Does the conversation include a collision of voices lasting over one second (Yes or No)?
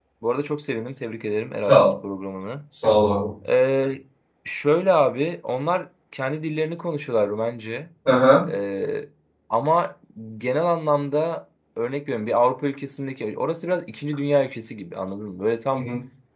No